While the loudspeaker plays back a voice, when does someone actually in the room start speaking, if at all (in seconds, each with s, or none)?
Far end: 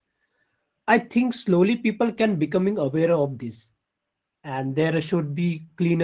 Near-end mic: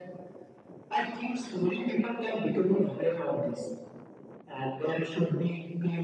none